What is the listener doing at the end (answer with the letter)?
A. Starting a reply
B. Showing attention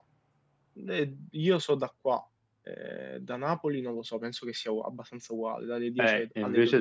A